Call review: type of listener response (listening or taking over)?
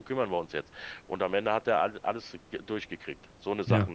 listening